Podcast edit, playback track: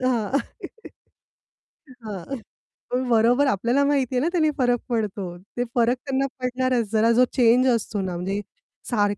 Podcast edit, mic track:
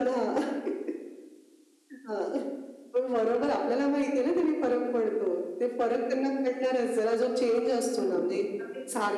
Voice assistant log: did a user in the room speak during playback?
Yes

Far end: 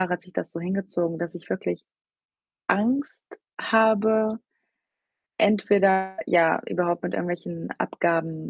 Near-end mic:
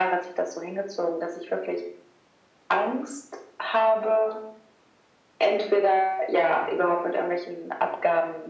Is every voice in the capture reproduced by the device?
Yes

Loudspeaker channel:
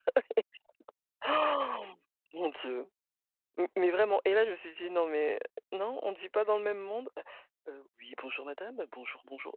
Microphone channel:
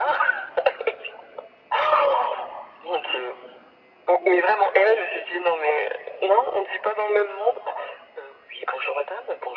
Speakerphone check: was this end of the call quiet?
Yes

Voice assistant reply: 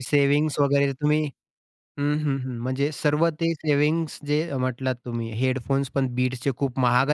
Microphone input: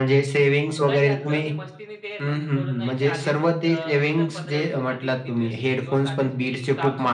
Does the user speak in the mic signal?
Yes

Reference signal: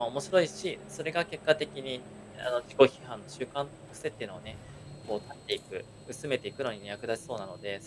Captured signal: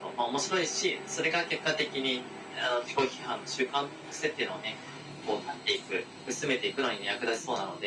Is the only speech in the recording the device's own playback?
Yes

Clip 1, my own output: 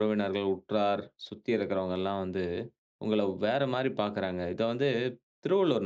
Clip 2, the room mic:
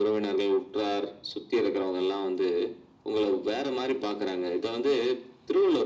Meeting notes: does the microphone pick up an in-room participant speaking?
No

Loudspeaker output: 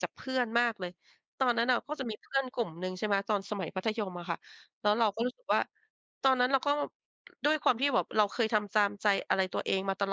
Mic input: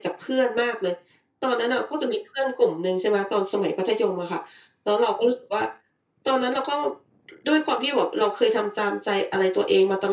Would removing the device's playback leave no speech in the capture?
Yes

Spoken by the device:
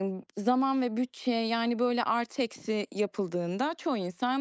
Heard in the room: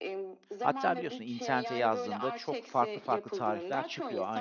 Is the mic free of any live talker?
No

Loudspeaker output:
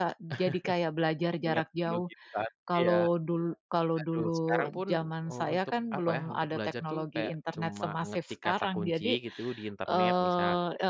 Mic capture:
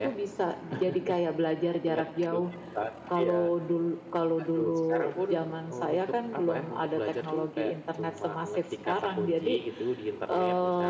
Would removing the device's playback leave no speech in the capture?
Yes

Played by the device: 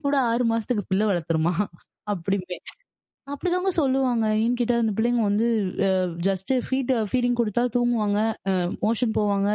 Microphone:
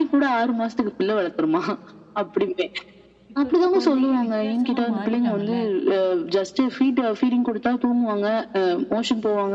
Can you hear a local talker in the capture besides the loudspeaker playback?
Yes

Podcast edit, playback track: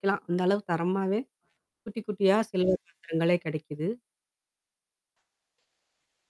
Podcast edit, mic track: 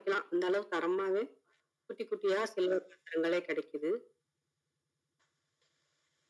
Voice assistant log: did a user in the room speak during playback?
No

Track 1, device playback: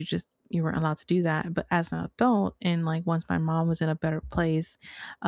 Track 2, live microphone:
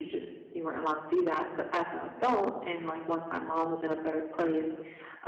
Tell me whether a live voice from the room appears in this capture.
No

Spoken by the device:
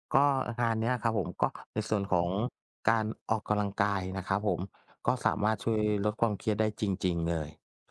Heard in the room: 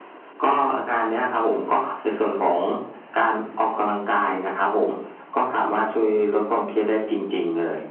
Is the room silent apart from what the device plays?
Yes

